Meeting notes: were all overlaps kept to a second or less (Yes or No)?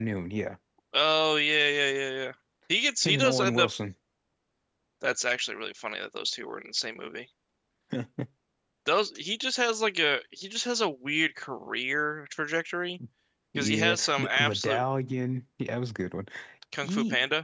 No